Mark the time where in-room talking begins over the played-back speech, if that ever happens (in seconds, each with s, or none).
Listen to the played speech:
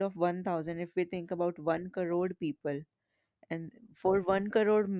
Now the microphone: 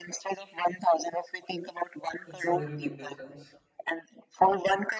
2.2 s